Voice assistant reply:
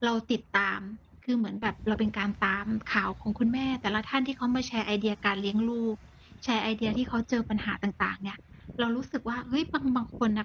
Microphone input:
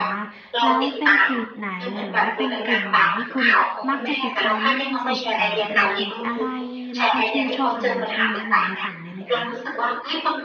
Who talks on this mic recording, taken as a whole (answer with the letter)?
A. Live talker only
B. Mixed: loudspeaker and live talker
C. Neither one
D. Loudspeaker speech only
B